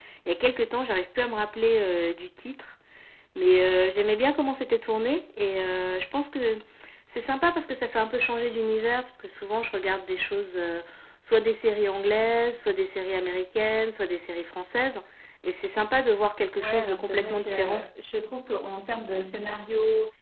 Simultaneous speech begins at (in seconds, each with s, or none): 16.6 s